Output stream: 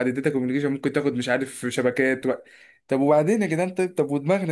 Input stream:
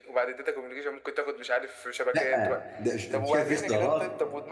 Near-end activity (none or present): present